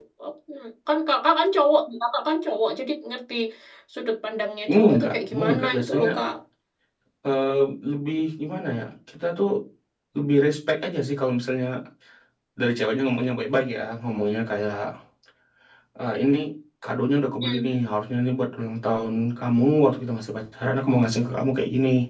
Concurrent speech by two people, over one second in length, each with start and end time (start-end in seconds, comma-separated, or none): 4.8-6.1